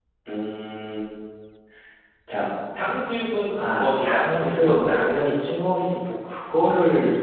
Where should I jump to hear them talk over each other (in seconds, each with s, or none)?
3.5 s